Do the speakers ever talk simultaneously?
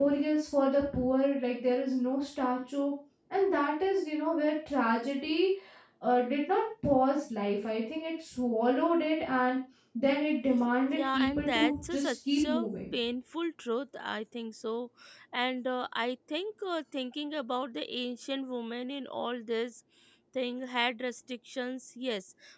Yes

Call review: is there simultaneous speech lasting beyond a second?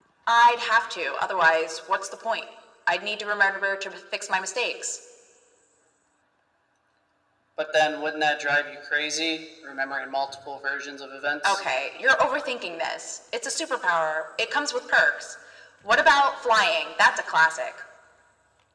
No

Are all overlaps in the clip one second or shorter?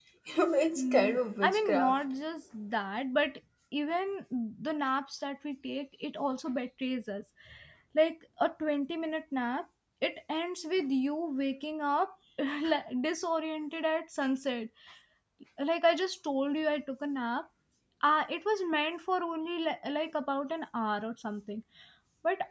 No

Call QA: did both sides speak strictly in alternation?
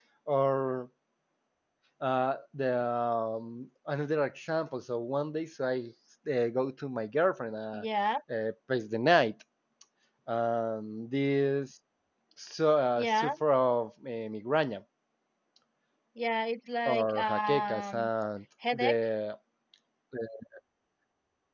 No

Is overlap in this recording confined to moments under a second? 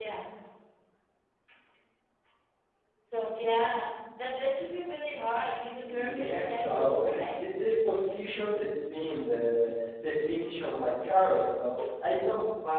No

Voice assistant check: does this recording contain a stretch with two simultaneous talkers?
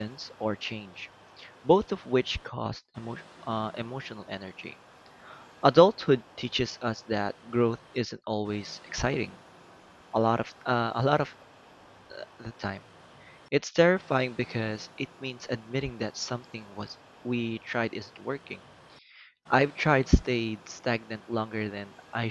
No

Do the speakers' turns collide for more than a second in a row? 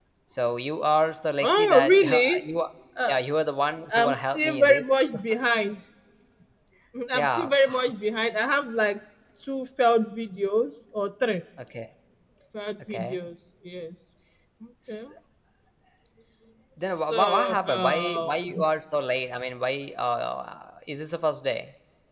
Yes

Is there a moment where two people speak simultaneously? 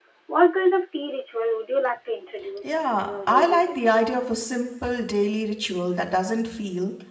Yes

